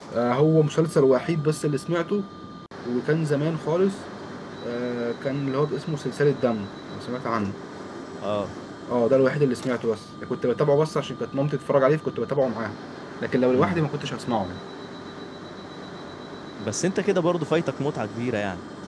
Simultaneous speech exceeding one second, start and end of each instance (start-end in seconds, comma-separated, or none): none